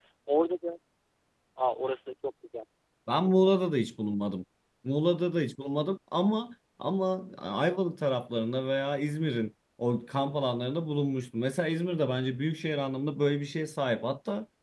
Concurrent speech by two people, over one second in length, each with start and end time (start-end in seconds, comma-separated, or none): none